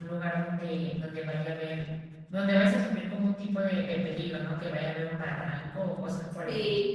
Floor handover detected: Yes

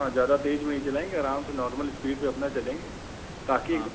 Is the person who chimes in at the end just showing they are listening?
No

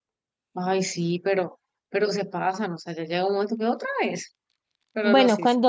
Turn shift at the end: Yes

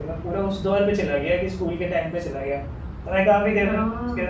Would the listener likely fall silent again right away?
Yes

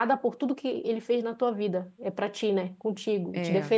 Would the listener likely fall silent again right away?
Yes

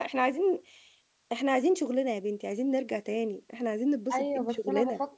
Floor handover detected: Yes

